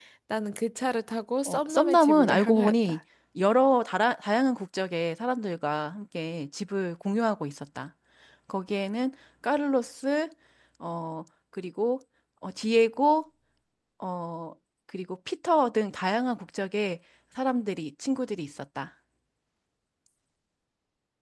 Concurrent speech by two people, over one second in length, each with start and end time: 1.4-3.0

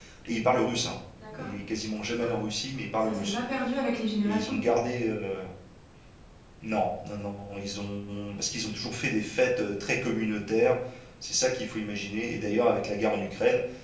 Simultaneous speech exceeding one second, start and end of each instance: none

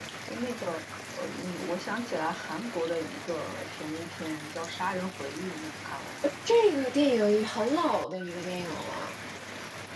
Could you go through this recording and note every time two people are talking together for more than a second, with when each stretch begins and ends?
none

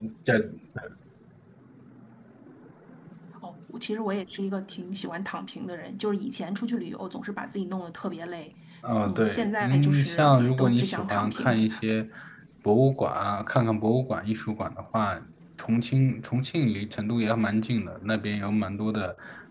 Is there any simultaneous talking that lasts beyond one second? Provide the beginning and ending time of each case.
9.1-11.5

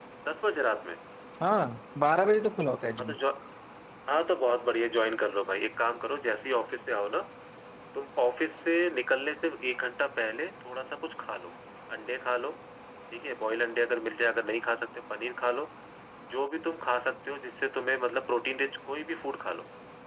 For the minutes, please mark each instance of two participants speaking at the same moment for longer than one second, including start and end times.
none

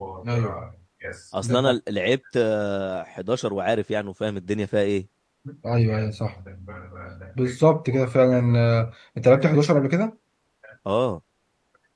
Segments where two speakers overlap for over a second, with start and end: none

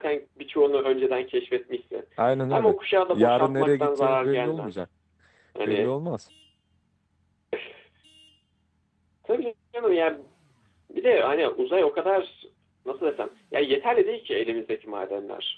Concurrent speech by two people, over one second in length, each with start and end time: 3.1-4.8

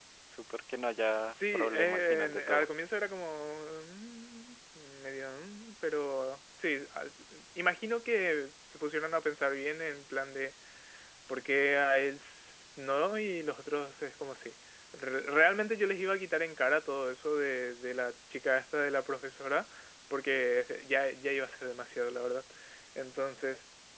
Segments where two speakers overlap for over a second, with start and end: 1.3-2.7

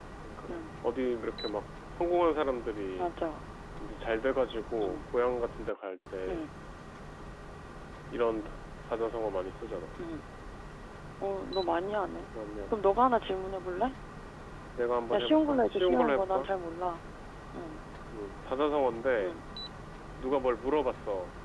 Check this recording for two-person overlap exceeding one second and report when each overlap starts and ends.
15.1-16.5

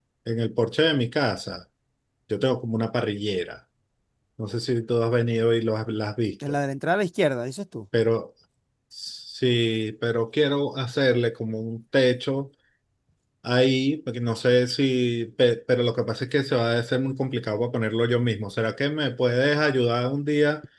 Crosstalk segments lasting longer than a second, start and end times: none

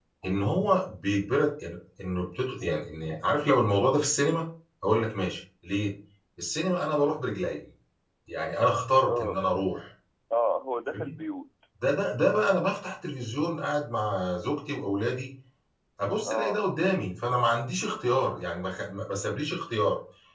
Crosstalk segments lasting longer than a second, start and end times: none

